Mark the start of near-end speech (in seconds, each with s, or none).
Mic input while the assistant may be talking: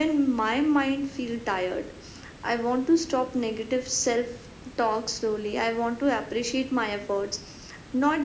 none